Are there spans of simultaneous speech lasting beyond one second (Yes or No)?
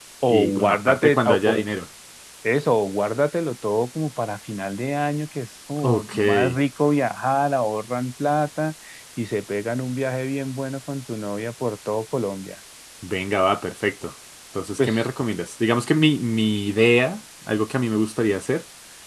Yes